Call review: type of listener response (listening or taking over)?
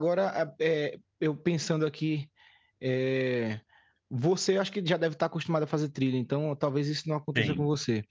listening